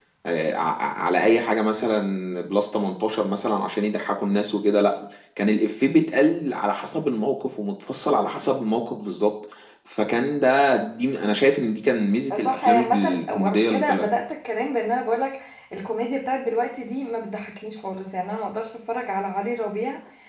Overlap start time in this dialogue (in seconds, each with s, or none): 12.3 s